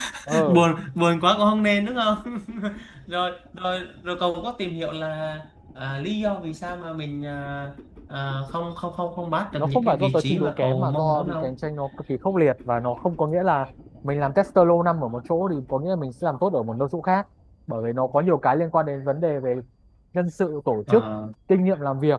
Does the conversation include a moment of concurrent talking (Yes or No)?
Yes